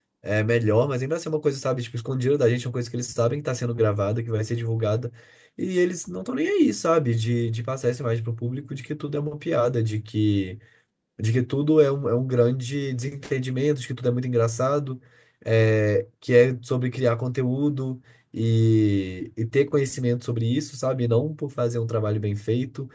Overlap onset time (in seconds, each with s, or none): none